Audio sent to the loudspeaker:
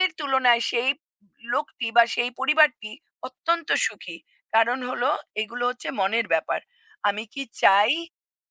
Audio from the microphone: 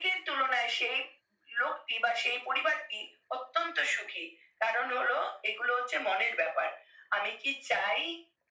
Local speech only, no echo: none

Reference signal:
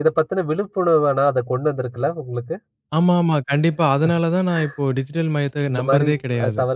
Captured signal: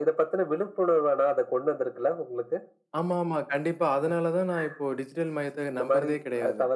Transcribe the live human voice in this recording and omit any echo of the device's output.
none

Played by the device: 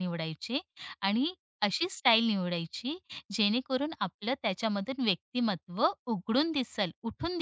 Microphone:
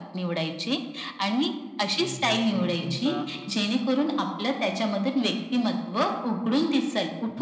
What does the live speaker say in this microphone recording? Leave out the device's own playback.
की जेणेकरून तुमचा

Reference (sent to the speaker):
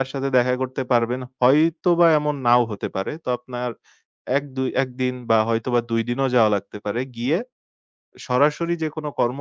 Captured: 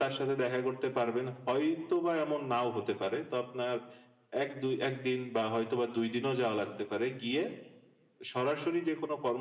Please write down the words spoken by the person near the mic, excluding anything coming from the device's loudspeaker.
none

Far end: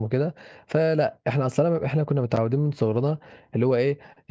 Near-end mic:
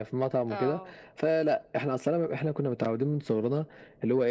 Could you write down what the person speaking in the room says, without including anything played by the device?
آه،

